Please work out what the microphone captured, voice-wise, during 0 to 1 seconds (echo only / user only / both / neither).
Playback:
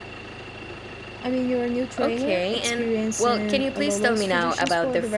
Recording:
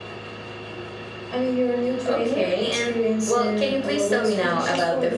neither